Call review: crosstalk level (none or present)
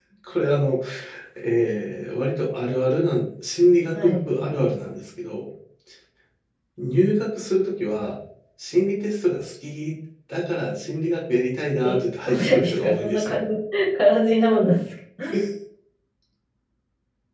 present